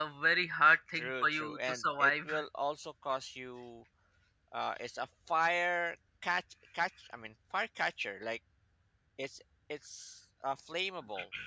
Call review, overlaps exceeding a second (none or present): present